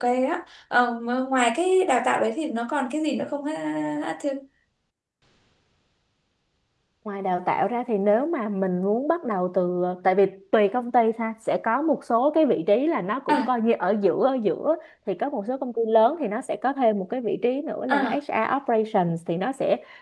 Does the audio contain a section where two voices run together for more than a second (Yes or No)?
No